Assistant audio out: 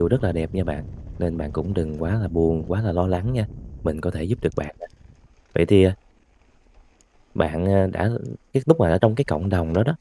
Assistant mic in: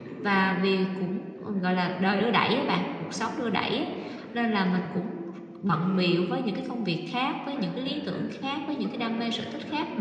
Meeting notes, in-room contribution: present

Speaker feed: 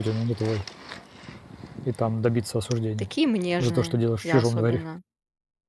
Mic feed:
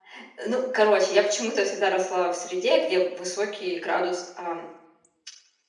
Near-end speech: present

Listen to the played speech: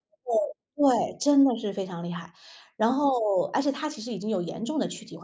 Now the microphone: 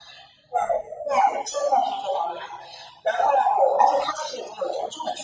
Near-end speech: none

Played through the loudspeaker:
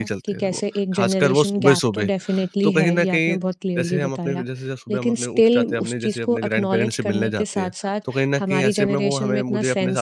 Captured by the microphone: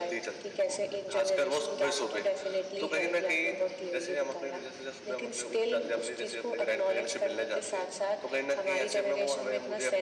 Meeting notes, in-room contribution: none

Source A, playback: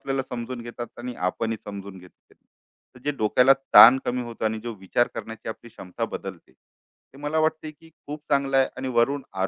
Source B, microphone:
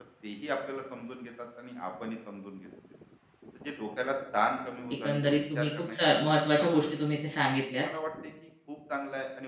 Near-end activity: present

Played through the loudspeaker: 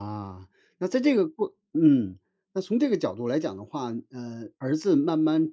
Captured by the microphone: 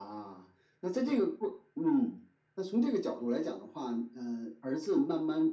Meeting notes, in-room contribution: none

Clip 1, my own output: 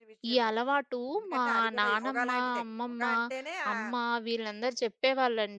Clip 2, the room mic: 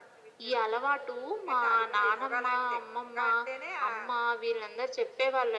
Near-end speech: none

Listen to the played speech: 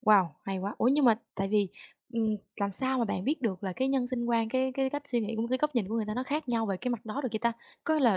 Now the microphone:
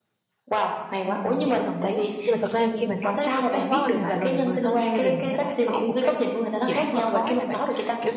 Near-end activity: present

